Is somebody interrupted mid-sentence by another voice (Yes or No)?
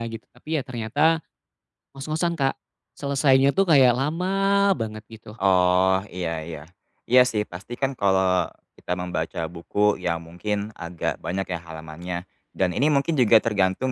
No